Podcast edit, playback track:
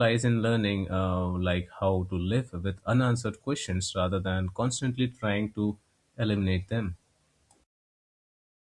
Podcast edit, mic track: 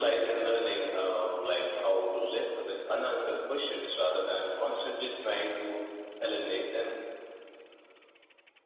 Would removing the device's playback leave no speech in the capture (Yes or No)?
Yes